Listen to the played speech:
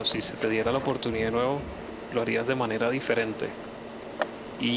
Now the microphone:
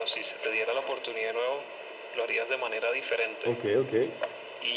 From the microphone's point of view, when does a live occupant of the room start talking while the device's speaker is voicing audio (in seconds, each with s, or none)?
3.4 s